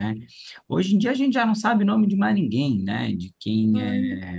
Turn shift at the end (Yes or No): No